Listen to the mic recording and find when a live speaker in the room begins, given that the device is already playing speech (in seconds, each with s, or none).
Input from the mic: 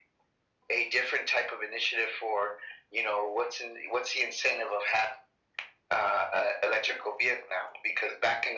none